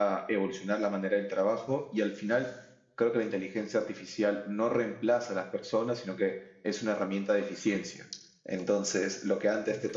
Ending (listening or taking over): listening